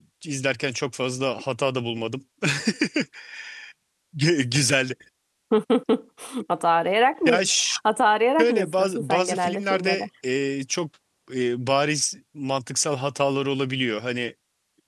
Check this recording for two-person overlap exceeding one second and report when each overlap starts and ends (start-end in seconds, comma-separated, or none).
8.4-10.0